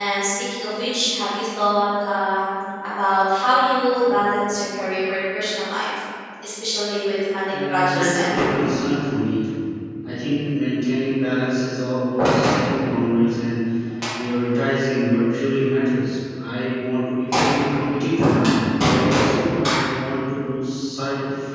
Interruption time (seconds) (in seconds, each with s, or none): 7.5 s